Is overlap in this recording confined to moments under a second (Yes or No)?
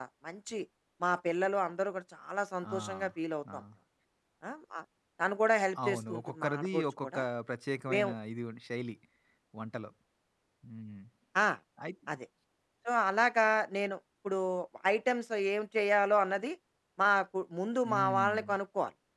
No